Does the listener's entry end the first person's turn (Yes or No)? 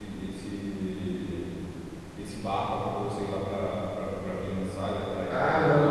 Yes